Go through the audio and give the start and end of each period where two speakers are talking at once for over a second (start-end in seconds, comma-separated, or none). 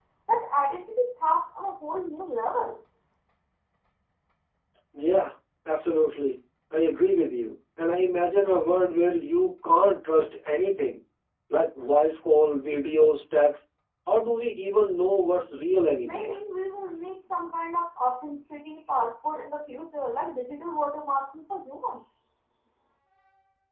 none